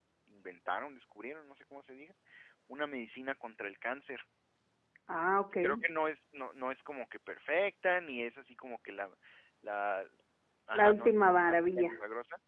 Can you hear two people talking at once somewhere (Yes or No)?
Yes